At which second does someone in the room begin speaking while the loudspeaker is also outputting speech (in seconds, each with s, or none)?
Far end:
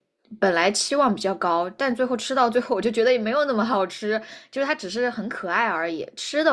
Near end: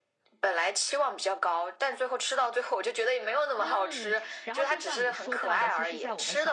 3.5 s